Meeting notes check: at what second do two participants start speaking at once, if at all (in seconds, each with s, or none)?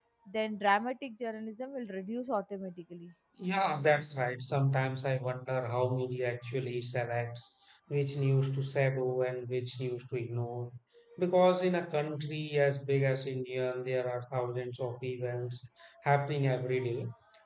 none